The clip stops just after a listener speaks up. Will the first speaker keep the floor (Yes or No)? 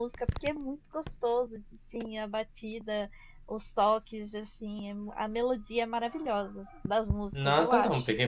No